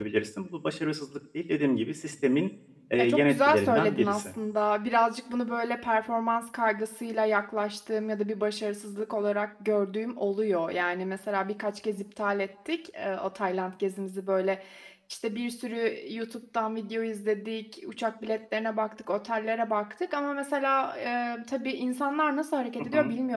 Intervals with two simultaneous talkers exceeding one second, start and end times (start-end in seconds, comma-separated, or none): 3.0-4.3